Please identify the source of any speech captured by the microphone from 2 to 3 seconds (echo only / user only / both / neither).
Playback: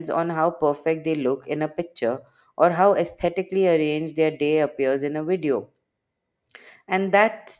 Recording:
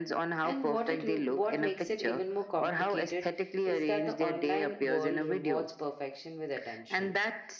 both